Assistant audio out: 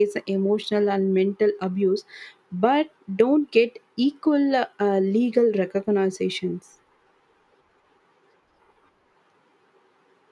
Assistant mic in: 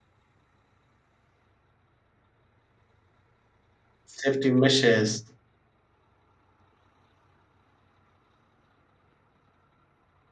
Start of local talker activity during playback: 4 s

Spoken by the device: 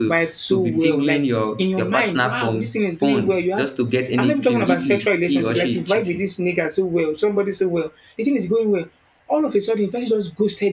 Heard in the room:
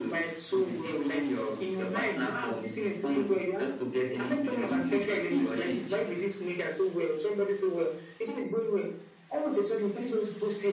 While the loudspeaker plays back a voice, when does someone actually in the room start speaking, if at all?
none

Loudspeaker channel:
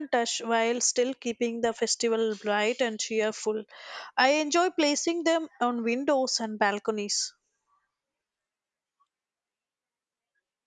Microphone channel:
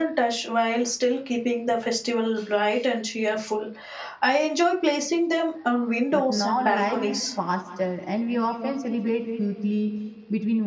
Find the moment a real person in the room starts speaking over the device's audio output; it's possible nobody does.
6 s

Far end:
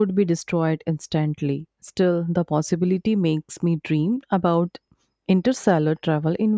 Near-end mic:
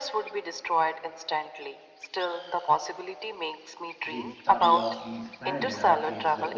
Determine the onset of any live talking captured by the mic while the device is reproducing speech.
4 s

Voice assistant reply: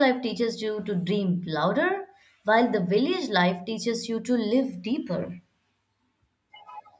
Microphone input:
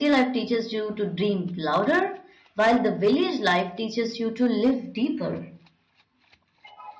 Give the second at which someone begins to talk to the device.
none

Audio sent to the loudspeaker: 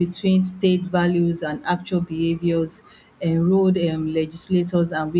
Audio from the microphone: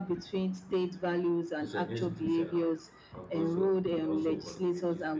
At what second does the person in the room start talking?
2 s

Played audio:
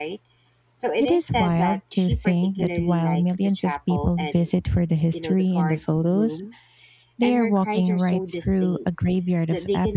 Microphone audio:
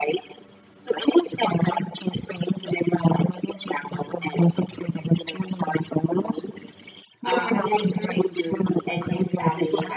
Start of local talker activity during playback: 7 s

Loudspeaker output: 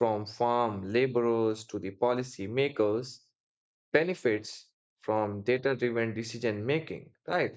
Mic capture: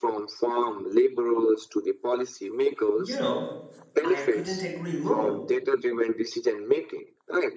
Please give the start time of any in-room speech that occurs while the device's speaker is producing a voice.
3 s

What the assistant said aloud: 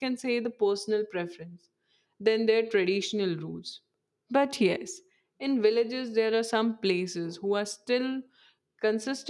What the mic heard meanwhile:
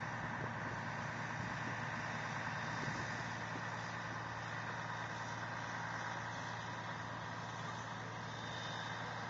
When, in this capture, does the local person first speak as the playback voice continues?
none

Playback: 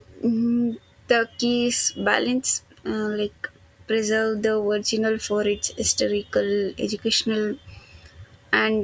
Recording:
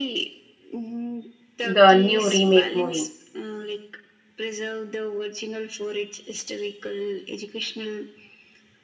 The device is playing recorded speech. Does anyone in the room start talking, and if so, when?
2 s

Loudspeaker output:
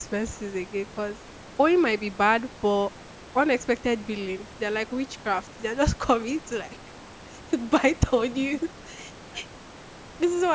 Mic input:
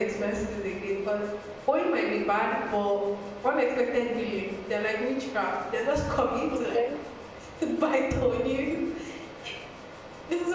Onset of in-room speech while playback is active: 7 s

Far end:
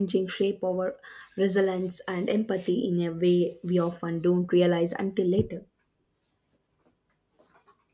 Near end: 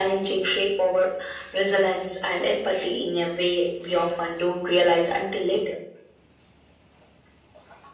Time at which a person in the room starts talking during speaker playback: none

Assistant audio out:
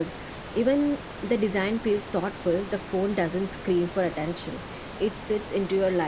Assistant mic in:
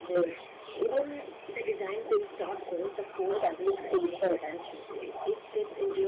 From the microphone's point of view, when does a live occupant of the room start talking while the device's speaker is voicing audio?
none

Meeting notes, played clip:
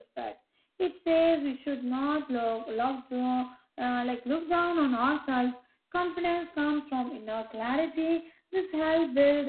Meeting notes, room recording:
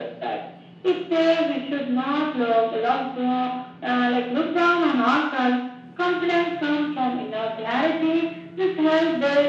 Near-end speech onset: none

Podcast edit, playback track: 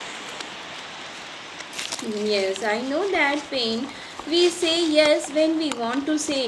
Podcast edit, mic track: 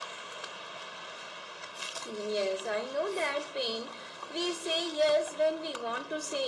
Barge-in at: none

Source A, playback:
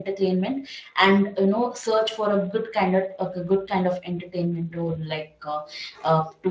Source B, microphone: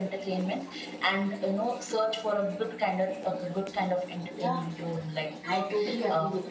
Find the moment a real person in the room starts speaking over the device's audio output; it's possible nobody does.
4 s

